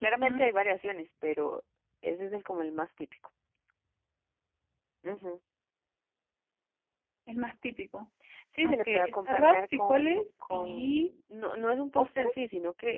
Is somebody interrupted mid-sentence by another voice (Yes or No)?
Yes